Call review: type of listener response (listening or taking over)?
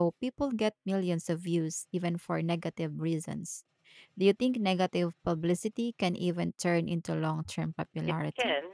taking over